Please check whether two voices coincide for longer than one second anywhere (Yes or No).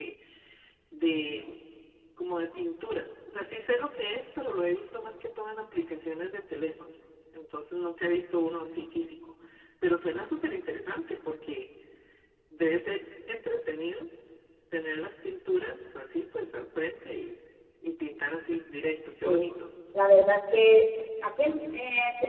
No